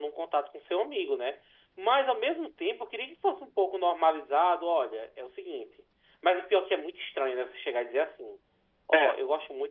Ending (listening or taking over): listening